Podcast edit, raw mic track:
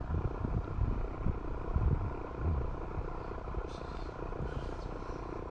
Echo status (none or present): none